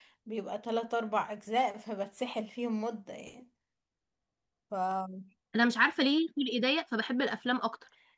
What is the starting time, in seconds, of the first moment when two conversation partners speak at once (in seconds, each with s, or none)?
none